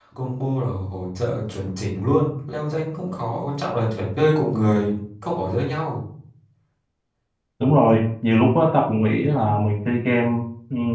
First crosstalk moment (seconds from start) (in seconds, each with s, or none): none